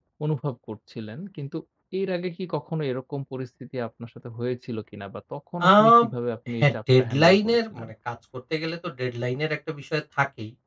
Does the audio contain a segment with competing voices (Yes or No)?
Yes